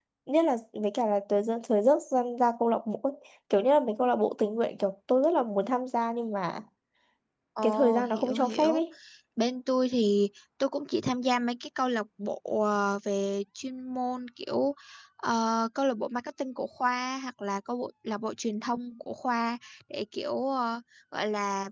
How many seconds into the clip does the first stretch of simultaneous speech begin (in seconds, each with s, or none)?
7.6 s